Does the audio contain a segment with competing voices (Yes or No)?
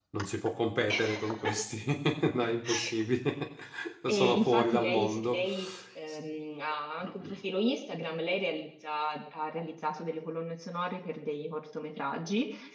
Yes